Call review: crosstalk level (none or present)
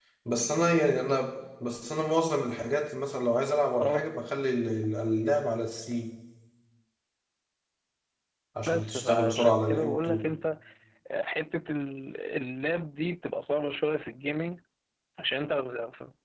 present